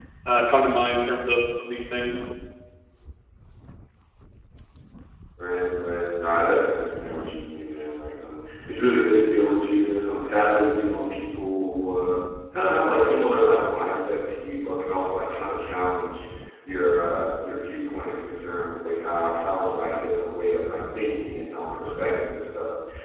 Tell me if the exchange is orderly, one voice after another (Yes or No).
Yes